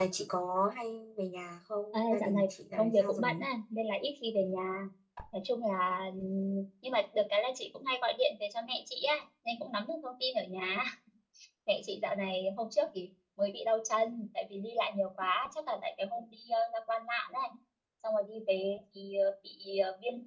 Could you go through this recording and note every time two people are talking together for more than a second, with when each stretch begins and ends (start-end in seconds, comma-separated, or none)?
1.9-3.4